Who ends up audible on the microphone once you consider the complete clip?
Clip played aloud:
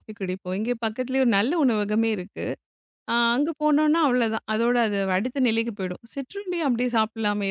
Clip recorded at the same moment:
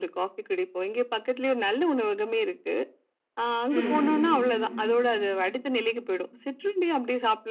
both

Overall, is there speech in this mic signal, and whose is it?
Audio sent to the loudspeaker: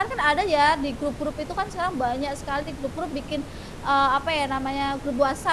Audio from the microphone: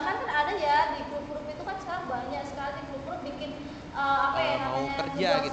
both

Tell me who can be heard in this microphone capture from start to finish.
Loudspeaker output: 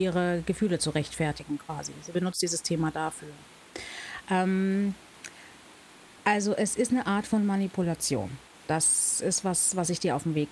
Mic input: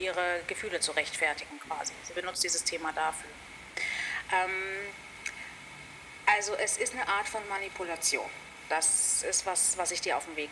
echo only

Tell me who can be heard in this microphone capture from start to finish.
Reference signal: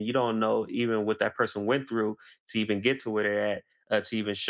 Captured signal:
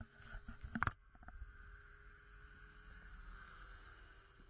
neither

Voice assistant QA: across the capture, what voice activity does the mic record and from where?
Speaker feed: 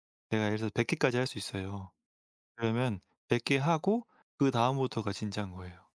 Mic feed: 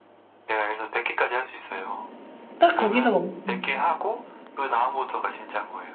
both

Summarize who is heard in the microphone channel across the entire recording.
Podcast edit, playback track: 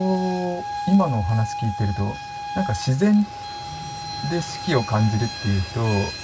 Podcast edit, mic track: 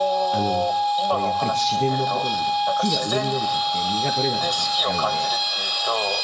both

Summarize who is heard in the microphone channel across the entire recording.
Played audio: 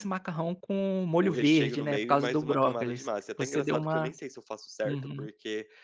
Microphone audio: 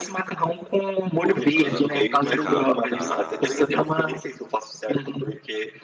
both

